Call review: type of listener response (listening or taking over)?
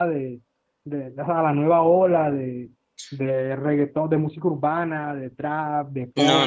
taking over